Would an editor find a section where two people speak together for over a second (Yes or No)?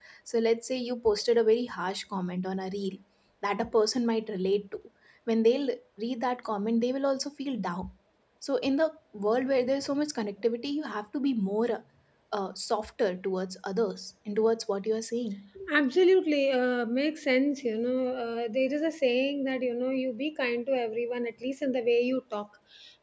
No